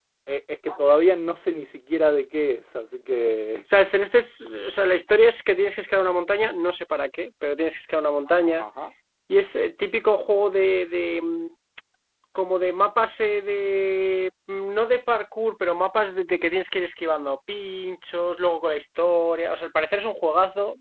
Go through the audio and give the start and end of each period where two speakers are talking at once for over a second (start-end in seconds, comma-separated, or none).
none